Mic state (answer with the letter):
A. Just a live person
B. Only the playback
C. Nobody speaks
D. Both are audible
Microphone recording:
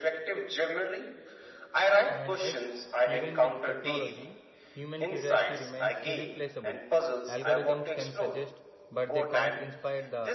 D